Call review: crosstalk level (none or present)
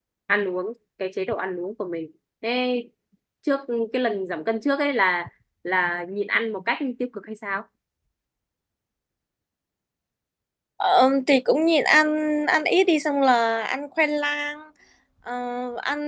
none